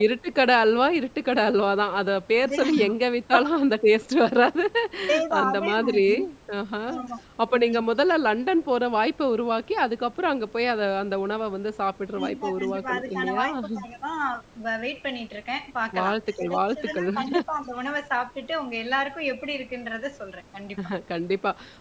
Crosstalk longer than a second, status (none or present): present